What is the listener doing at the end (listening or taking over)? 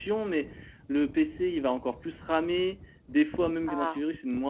listening